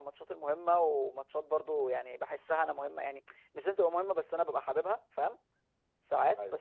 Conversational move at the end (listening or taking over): listening